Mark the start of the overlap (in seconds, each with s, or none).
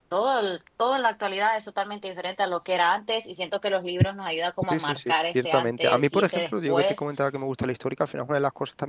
4.7 s